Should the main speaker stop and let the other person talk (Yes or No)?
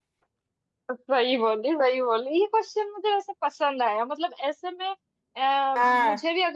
No